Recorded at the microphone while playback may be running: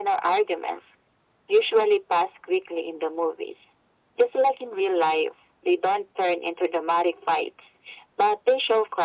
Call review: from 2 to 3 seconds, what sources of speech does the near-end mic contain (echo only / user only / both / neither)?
echo only